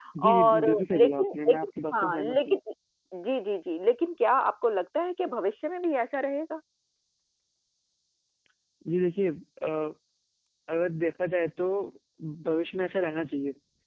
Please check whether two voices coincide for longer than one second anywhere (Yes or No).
Yes